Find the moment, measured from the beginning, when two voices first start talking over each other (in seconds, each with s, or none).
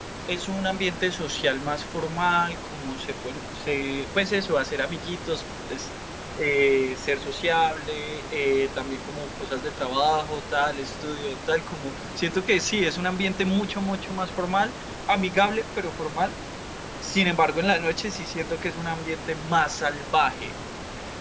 none